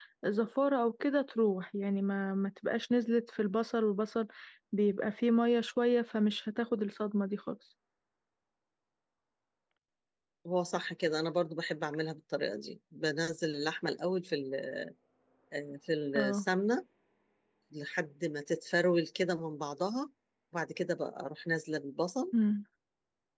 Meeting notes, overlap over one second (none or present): none